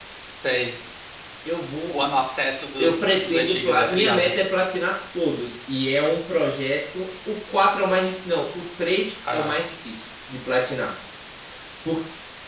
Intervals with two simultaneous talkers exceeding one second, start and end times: 2.8-4.3

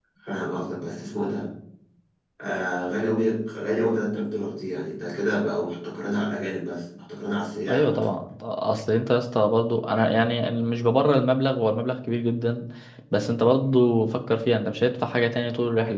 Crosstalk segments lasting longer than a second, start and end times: none

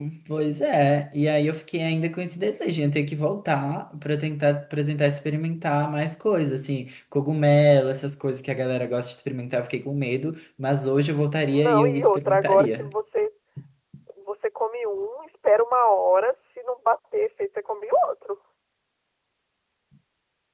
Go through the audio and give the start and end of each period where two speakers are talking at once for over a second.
11.4-12.9

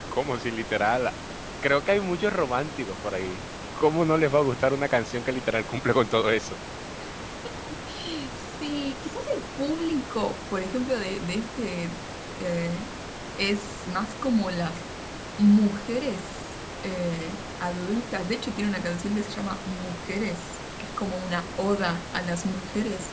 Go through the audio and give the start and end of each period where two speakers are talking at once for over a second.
none

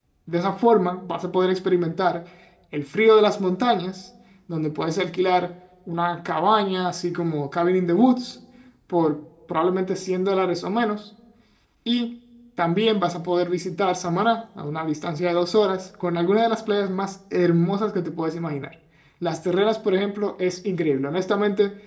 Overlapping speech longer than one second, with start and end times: none

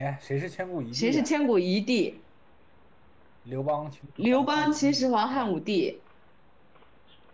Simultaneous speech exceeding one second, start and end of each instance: 4.3-5.5

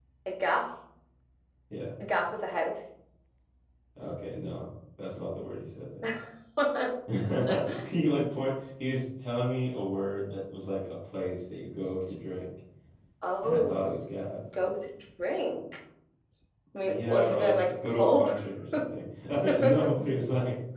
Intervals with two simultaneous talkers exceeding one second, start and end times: 16.9-18.3

